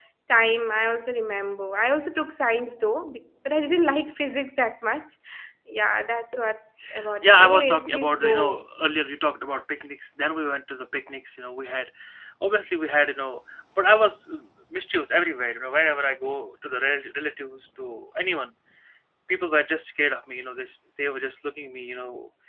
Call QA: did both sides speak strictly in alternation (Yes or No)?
No